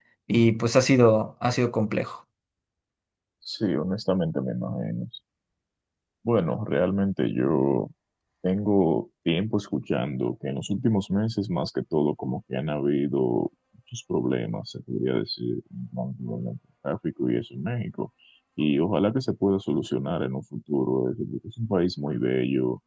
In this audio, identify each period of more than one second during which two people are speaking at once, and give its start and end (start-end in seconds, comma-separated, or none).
none